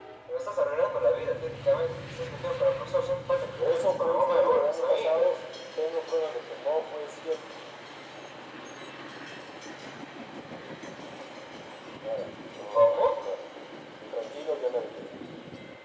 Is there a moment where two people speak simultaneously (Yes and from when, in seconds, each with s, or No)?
Yes, from 3.6 s